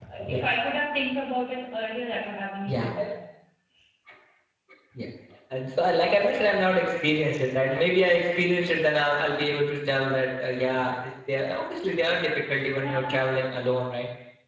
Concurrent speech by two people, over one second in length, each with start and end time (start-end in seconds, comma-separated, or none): none